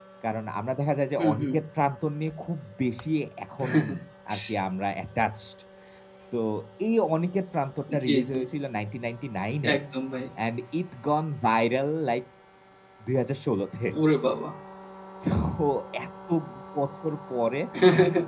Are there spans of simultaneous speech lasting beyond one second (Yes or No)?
No